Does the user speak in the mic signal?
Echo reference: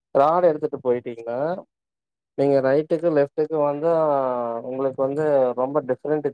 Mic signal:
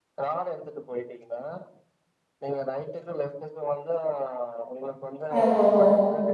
Yes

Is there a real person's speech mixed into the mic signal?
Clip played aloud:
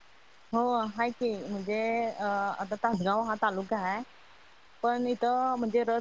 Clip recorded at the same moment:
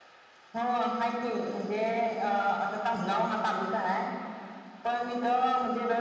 No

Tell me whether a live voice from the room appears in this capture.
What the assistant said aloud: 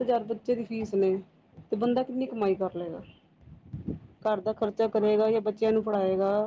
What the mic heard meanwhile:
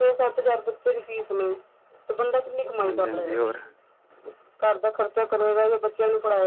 Yes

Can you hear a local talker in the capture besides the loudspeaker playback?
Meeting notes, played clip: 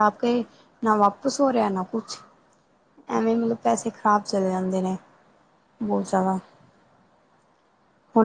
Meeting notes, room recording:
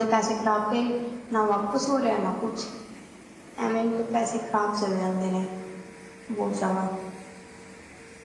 No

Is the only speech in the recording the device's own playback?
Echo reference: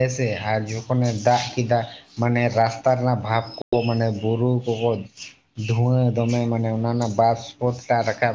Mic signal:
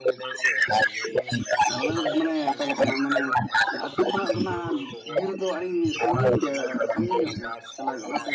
No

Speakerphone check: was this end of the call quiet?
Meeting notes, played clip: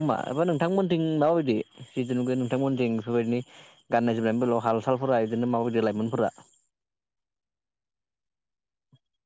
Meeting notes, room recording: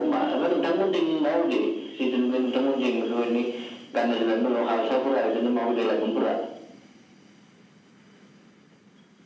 Yes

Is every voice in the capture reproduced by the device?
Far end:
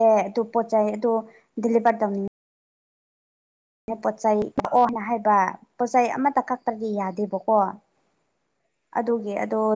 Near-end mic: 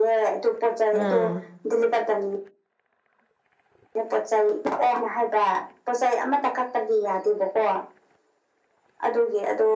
No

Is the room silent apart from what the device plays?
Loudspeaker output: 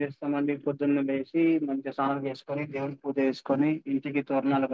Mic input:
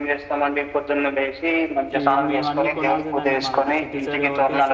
No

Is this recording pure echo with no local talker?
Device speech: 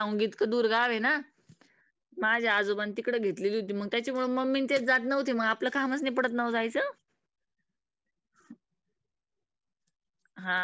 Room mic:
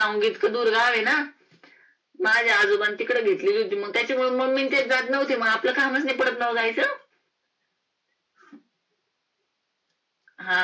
Yes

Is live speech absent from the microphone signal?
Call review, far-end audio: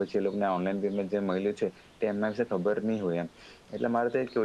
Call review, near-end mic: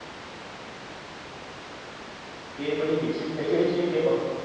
No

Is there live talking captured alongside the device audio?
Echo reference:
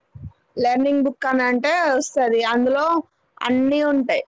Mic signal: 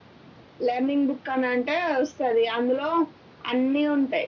No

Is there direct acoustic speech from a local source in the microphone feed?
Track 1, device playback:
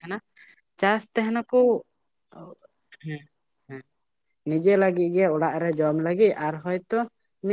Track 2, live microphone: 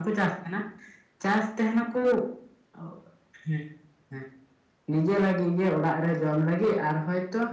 No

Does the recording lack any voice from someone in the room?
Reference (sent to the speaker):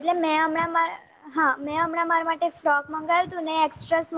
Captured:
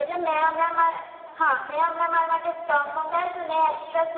Yes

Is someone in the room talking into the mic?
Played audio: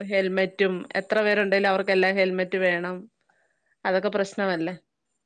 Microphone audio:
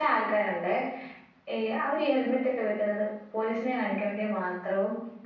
Yes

